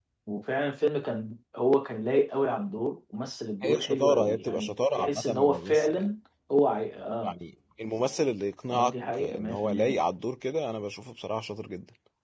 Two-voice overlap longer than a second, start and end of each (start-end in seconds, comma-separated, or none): 3.6-6.1, 8.7-10.0